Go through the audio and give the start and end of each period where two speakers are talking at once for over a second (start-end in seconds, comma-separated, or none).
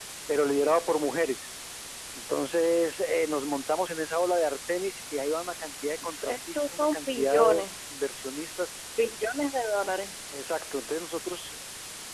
6.0-7.7